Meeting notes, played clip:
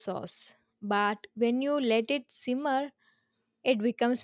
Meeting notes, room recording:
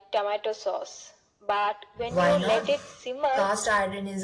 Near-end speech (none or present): present